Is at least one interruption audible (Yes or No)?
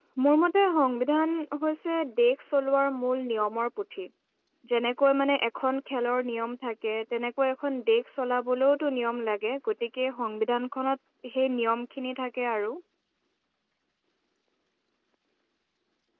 No